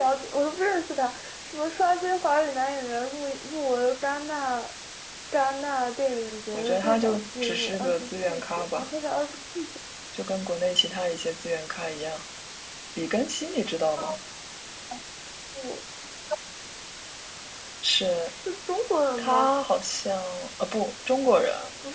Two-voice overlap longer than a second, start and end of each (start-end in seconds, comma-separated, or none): 6.5-8.9